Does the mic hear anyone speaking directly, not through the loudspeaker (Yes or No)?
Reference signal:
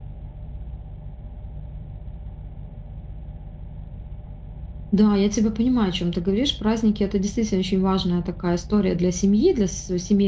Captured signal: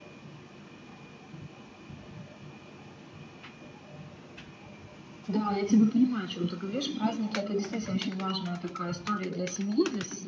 No